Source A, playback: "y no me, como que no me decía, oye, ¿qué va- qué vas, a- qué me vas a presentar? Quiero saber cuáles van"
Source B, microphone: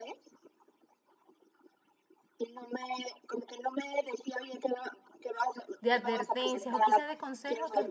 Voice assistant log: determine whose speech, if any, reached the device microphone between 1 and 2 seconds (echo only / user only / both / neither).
neither